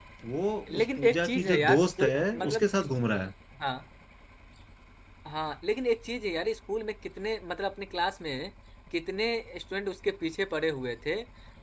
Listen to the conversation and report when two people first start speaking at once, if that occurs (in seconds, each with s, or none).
0.7 s